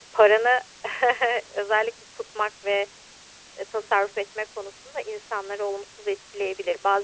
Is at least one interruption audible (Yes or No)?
No